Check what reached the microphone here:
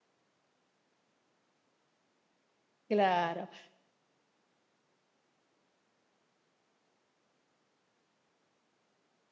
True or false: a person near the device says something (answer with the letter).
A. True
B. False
A